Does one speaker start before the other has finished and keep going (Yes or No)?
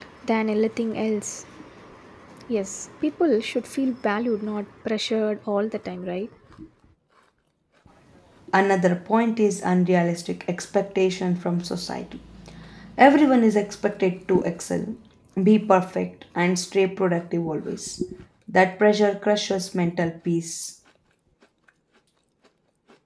No